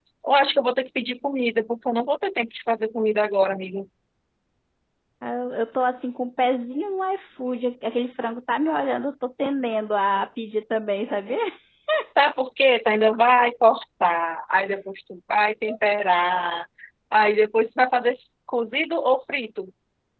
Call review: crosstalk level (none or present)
none